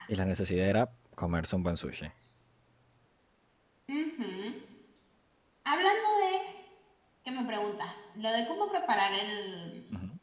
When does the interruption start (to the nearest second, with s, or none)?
none